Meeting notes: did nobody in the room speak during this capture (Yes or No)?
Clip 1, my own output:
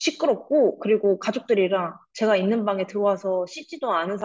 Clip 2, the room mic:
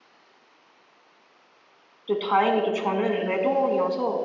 No